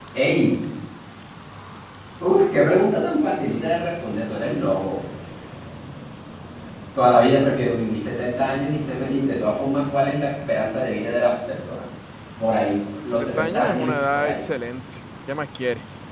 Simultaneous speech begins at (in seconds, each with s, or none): 13.1 s